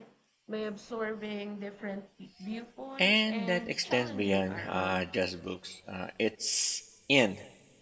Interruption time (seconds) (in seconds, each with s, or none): 3.0 s